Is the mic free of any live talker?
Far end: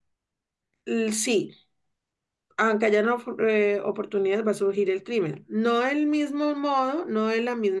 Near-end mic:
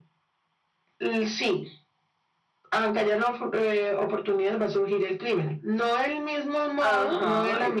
No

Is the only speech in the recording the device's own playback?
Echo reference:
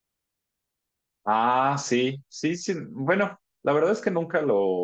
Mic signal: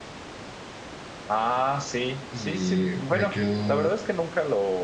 No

